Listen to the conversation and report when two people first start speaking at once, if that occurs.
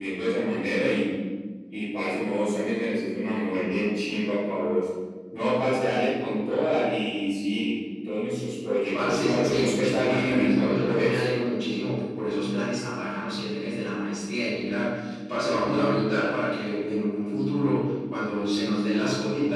8.9 s

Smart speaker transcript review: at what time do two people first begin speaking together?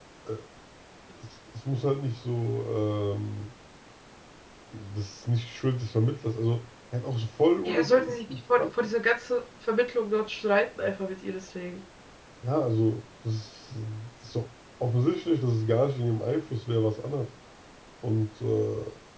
7.6 s

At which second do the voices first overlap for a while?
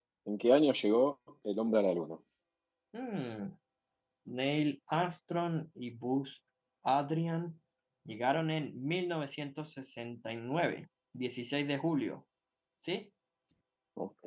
none

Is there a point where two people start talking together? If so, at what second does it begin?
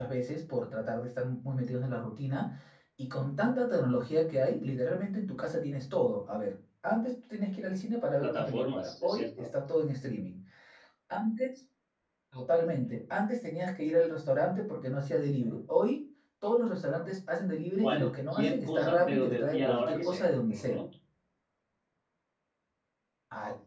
8.2 s

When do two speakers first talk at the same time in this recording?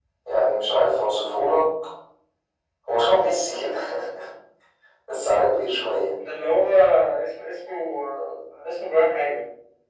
none

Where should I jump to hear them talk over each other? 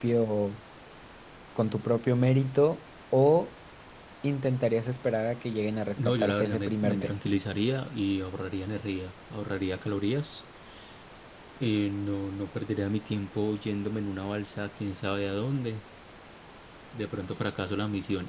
6.0 s

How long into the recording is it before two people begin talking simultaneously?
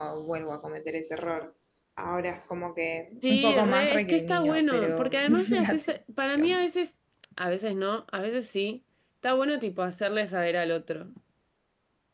3.2 s

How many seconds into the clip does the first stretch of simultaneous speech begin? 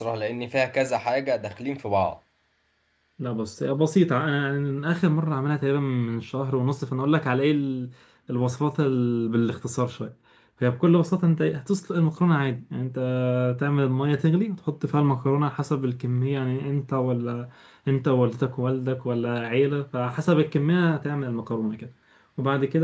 none

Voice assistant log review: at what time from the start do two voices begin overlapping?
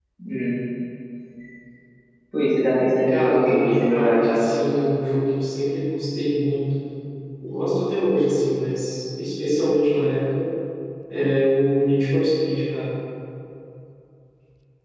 3.1 s

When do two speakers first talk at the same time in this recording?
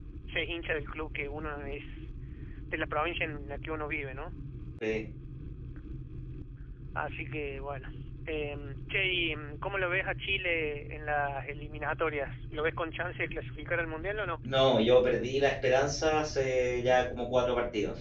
none

